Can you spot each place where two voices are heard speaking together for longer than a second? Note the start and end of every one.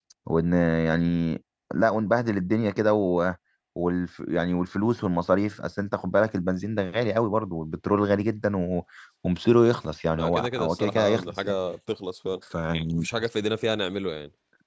10.2-11.5

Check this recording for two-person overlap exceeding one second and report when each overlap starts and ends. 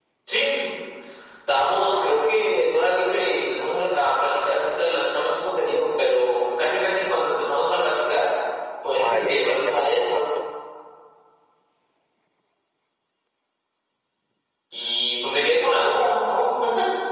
9.0-10.2

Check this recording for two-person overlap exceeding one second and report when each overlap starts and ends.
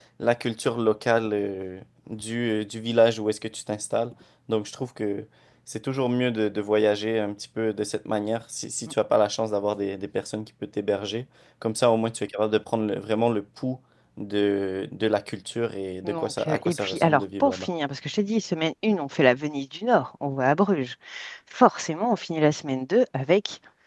16.0-17.7

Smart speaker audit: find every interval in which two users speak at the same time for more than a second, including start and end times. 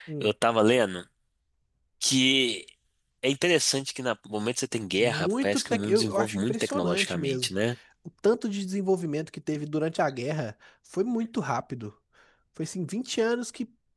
5.0-7.5

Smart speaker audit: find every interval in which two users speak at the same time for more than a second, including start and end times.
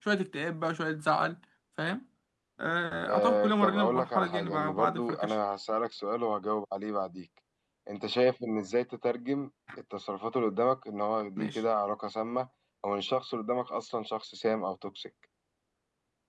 3.1-5.3

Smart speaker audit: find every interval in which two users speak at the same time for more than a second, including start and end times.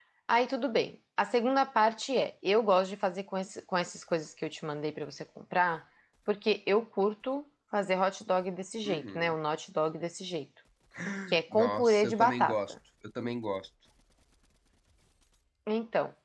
11.5-12.7

